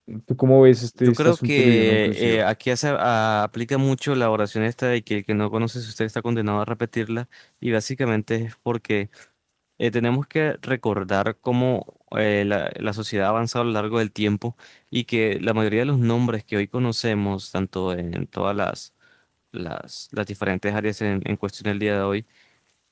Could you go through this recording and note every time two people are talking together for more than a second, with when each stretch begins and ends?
1.1-2.4

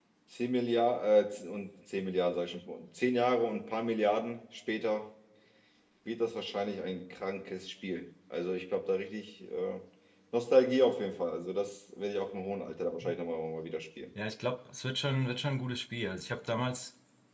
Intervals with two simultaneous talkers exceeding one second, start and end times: none

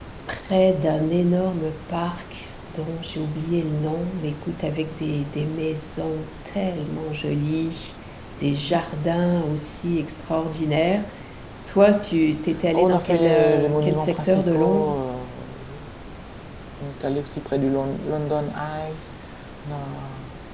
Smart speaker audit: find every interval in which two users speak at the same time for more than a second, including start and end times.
12.7-14.9

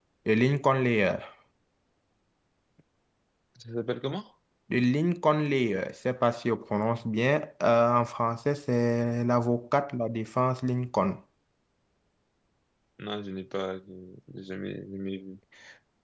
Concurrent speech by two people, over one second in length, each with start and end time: none

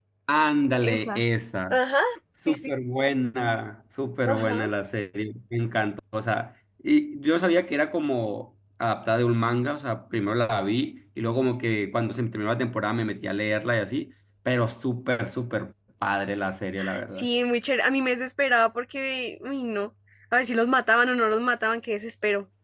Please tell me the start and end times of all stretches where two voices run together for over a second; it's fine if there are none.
none

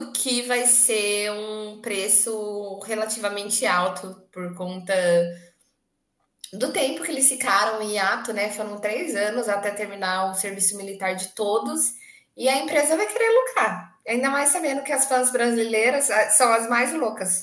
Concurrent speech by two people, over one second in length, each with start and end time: none

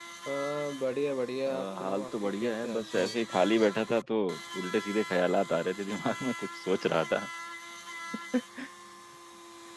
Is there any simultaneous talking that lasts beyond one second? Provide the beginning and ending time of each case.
1.5-3.2

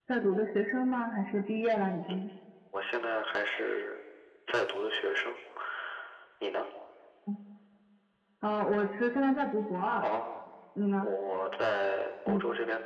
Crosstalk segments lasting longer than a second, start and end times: none

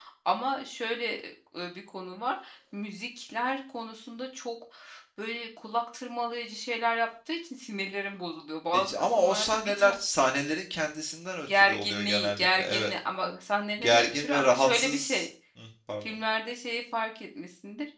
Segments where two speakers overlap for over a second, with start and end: 8.7-10.0, 11.5-12.9, 13.8-15.3

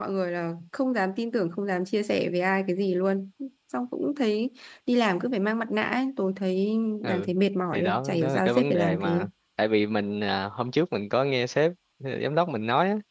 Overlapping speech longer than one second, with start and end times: 7.7-9.2

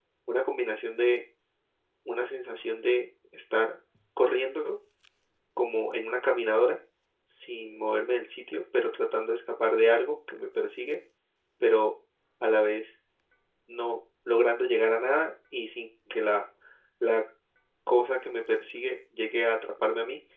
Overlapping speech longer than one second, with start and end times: none

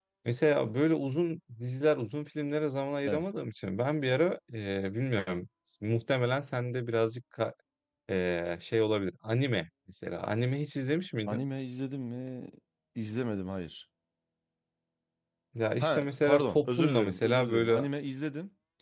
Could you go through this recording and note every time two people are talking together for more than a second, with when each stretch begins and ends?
15.8-17.9

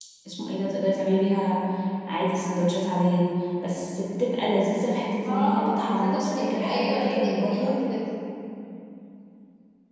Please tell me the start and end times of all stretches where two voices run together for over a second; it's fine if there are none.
5.3-7.7

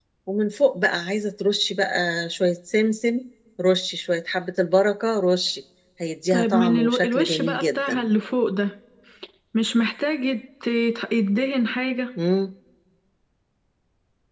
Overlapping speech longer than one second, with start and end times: 6.3-8.0

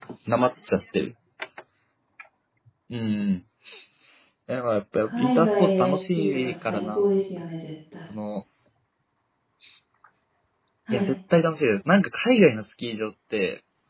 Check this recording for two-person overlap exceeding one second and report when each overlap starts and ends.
5.0-7.1

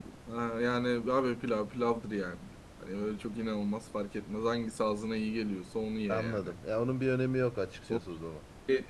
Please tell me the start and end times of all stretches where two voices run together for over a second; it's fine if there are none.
none

